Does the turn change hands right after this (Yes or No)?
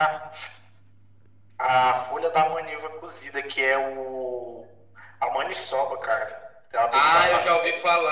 Yes